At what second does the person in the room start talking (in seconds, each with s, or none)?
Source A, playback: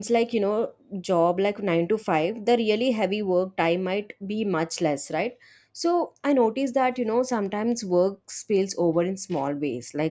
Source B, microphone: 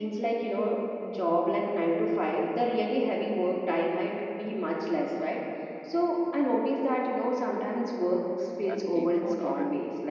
8.7 s